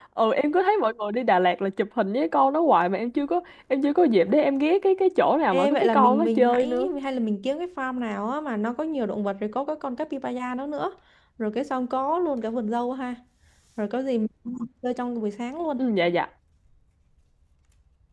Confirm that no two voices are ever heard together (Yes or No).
No